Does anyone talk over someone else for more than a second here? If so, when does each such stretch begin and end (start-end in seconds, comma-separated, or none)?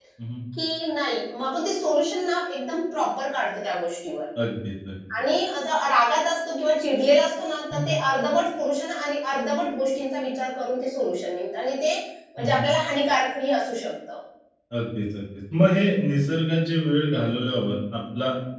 none